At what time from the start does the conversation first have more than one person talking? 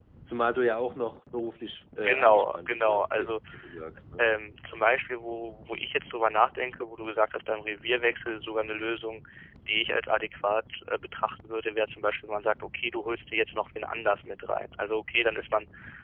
2.0 s

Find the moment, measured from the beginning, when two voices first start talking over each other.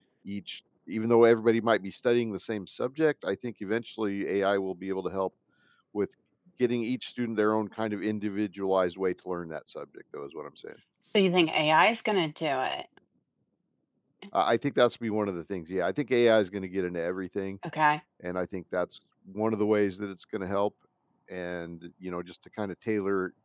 none

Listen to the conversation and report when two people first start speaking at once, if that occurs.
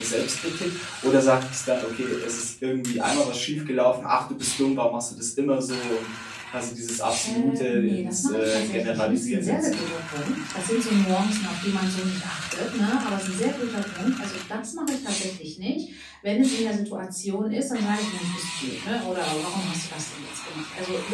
7.2 s

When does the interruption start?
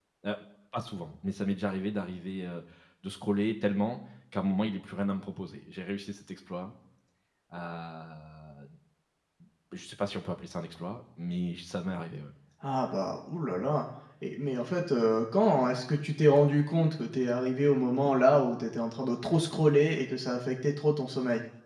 none

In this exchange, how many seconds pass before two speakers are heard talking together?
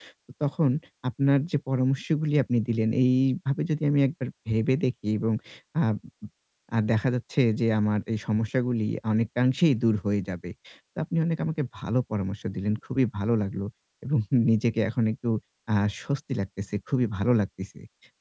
none

